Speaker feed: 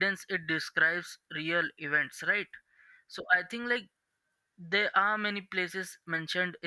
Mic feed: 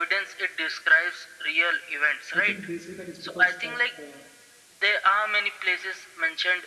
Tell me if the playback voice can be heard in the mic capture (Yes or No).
Yes